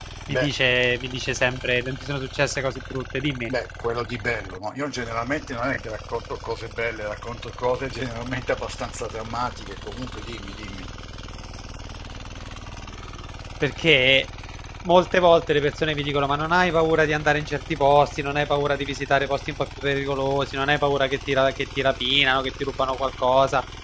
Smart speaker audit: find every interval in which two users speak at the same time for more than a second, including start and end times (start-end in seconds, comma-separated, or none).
none